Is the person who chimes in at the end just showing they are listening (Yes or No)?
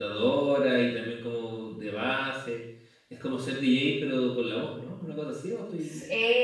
No